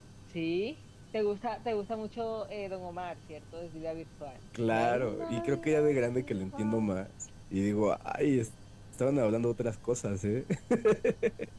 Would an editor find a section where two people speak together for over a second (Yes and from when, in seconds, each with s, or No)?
Yes, from 4.5 s